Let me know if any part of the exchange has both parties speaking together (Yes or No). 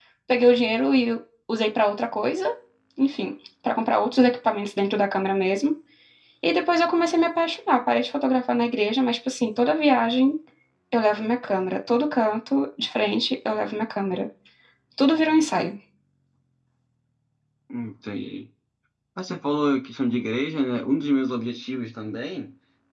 No